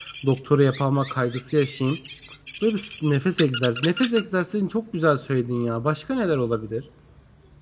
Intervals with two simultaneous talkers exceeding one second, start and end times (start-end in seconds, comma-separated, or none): none